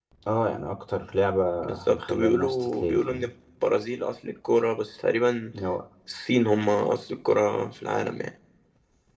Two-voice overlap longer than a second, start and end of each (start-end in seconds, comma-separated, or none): 1.9-3.3